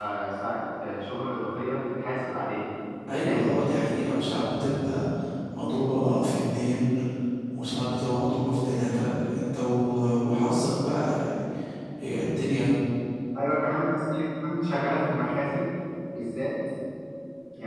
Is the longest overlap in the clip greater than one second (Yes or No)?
No